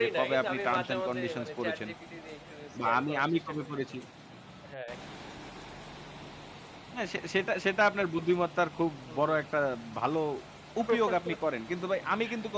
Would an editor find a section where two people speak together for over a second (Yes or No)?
Yes